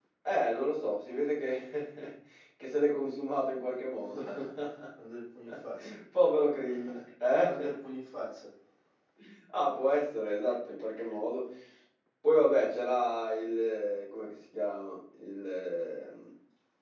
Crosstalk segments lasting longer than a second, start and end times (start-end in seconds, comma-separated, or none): none